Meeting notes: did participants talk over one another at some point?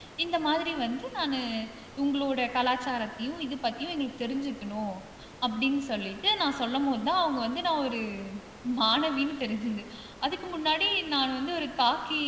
No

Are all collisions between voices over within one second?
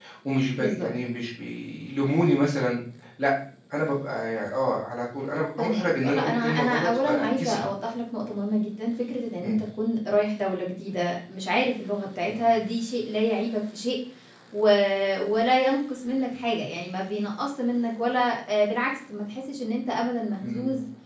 No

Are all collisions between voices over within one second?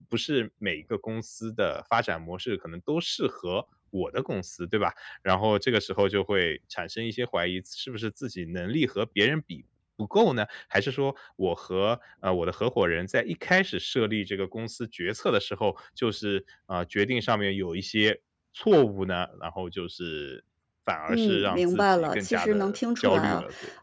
No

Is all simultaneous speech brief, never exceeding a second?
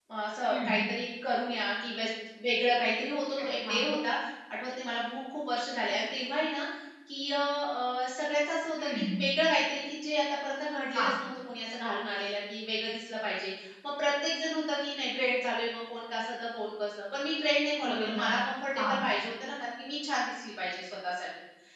Yes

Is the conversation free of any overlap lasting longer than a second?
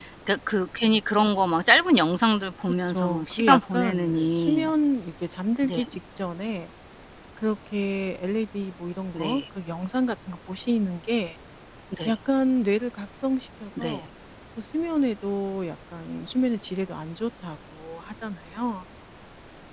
No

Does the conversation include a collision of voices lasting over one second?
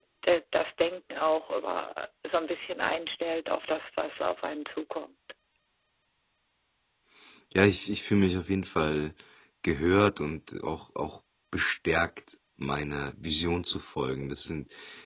No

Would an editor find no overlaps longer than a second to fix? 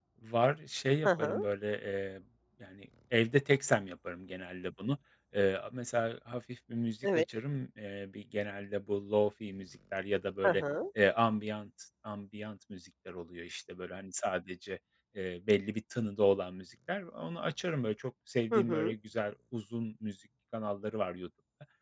Yes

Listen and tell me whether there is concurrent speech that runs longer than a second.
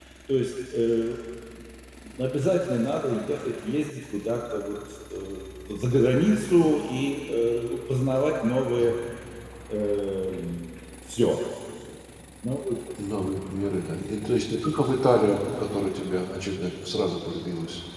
No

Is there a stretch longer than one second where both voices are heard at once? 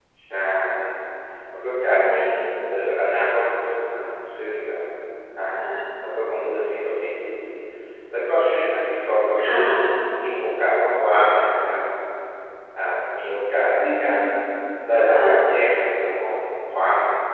No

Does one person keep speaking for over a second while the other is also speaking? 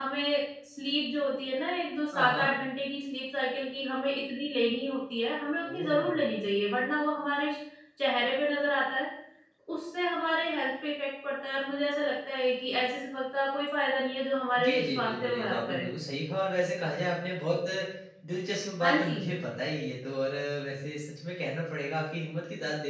Yes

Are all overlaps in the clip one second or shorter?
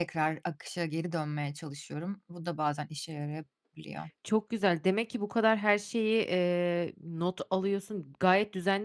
Yes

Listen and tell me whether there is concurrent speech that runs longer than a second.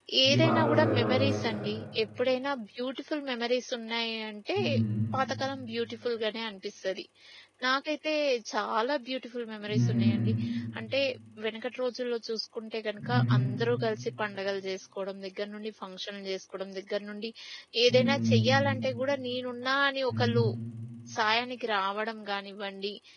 Yes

